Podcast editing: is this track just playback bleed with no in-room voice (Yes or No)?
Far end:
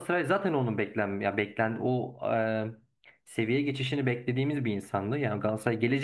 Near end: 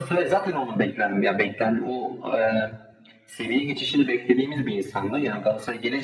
Yes